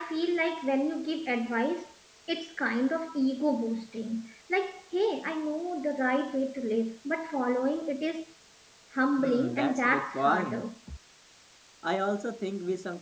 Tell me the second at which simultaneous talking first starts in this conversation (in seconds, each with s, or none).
9.2 s